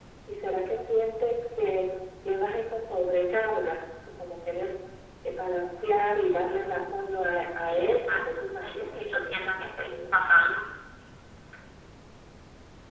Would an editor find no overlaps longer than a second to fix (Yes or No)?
No